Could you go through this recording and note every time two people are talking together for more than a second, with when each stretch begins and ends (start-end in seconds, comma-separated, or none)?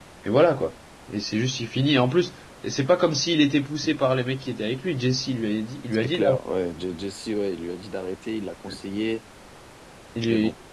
none